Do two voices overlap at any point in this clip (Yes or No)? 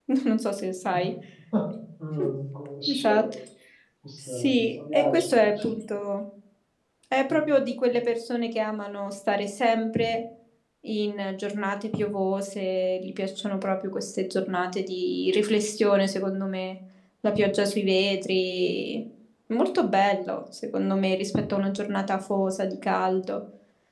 Yes